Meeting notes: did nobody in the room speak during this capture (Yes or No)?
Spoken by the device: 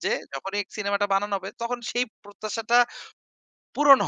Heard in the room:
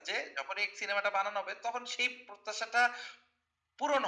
Yes